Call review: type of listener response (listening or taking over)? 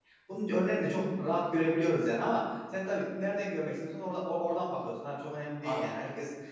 listening